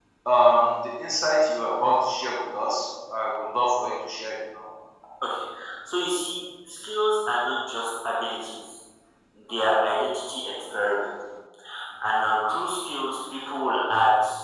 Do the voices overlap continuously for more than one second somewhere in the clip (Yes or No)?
No